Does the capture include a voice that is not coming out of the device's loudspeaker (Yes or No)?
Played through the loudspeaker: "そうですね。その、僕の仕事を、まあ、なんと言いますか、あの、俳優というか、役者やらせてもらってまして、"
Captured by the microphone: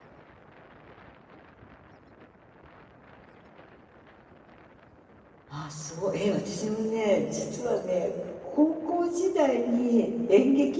Yes